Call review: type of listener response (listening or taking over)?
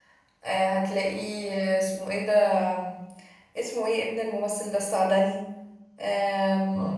listening